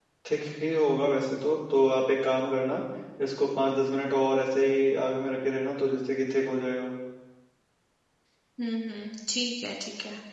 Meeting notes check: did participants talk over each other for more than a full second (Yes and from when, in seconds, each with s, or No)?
No